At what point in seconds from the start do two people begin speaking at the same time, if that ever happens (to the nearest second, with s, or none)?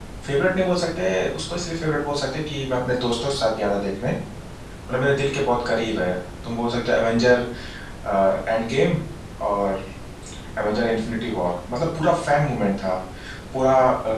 none